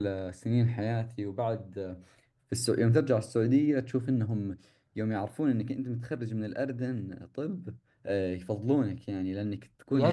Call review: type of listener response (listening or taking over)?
listening